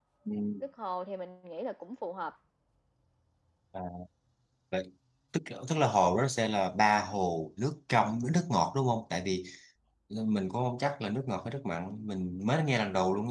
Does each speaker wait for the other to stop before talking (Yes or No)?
Yes